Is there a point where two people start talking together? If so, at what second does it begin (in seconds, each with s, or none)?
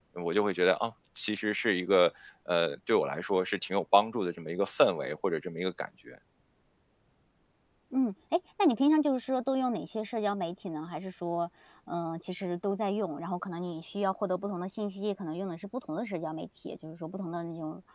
none